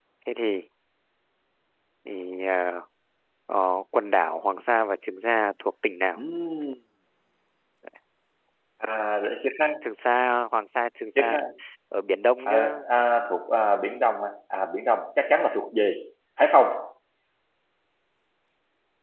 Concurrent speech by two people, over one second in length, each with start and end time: none

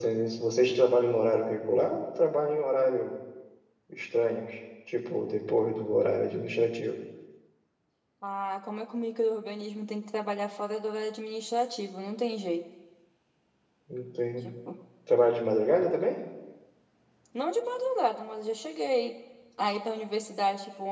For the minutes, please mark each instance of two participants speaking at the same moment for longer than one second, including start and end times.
none

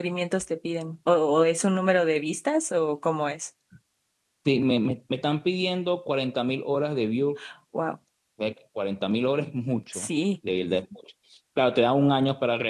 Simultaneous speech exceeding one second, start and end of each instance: none

